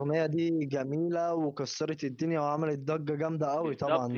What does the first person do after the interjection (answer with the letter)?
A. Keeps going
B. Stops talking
B